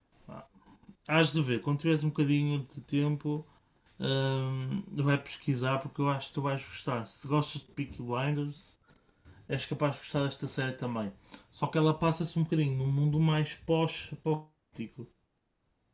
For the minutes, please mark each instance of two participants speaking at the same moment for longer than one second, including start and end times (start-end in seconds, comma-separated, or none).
none